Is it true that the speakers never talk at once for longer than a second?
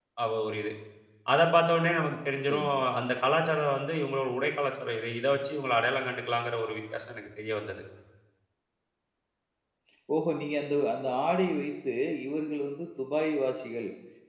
Yes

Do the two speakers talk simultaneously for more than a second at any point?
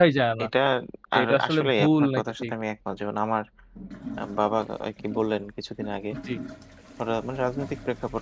Yes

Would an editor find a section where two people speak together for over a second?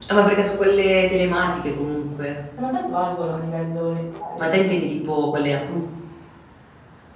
No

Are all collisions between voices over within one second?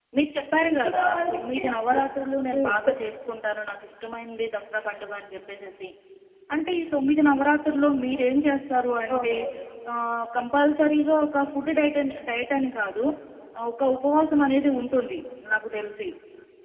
No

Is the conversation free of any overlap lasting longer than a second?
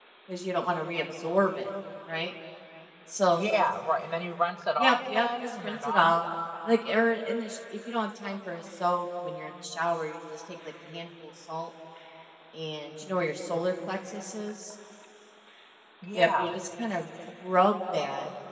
No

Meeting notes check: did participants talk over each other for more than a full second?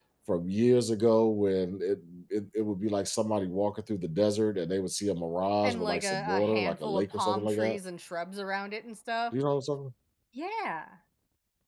Yes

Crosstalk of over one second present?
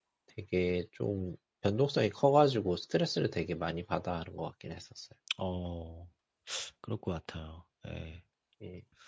No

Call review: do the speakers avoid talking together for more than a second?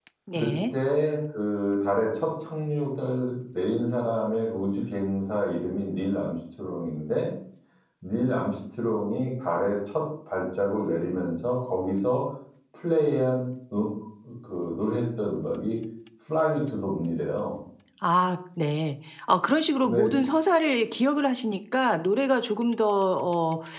Yes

